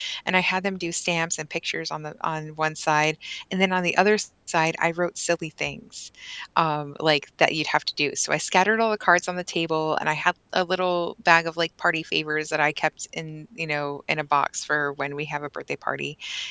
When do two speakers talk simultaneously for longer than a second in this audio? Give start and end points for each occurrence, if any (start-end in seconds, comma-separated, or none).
none